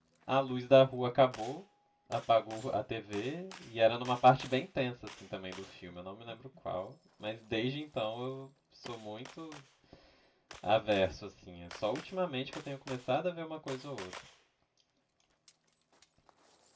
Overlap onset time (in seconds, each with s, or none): none